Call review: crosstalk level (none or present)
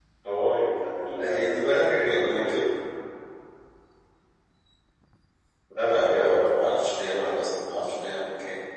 present